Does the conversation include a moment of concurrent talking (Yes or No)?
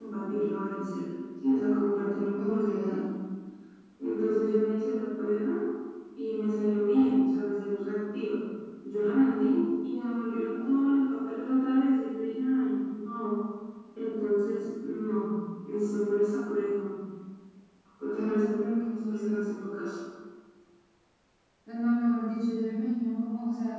Yes